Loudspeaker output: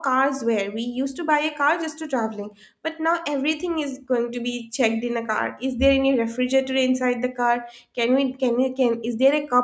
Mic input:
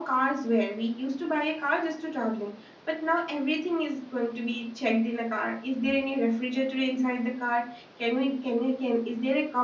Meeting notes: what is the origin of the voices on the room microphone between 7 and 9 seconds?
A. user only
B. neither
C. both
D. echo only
D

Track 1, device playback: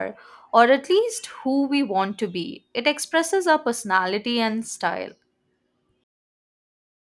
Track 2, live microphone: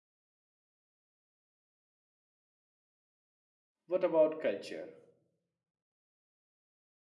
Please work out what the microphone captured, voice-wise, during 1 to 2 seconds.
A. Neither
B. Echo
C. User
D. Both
A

